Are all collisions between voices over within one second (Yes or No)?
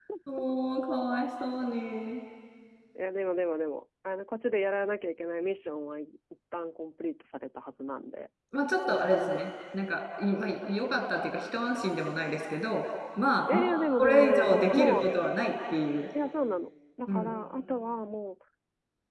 No